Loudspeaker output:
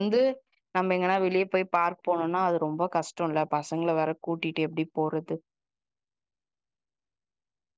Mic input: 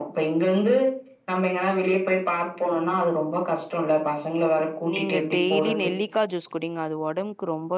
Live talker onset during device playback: 5 s

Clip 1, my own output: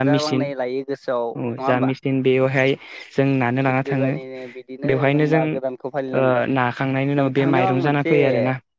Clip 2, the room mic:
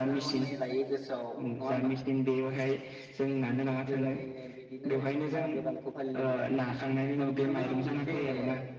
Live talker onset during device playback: none

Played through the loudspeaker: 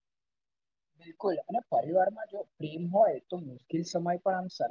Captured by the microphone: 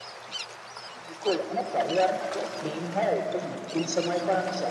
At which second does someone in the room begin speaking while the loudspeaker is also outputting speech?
none

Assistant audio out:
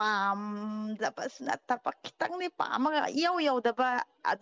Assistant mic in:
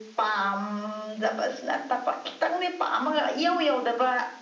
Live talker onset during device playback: none

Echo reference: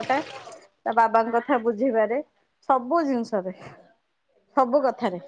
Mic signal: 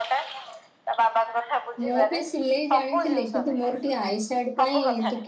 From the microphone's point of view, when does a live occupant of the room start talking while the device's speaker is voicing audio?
2 s

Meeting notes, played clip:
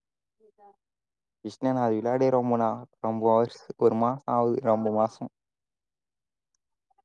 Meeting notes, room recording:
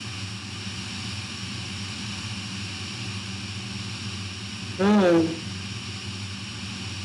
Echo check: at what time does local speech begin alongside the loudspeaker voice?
5 s

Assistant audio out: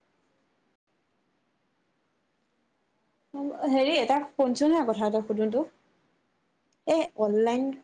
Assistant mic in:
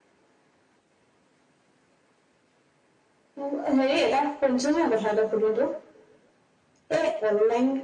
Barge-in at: none

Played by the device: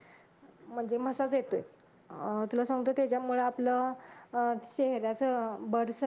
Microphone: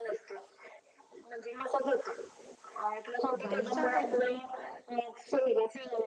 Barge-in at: 3 s

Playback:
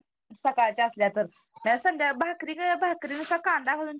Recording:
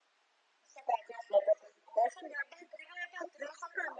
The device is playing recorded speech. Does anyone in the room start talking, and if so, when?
none

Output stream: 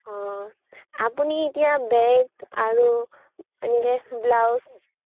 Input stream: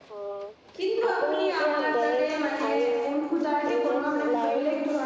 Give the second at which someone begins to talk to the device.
1 s

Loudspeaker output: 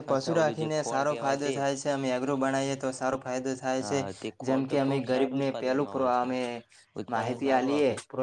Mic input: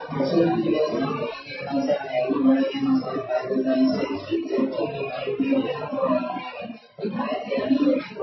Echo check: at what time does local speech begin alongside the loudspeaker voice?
none

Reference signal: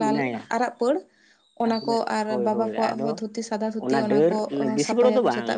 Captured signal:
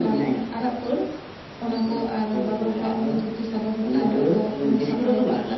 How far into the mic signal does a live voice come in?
none

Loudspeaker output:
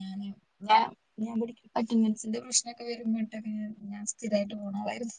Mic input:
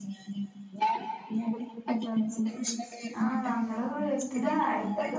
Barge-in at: 3 s

